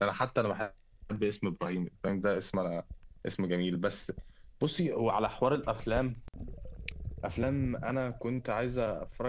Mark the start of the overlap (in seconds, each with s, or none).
none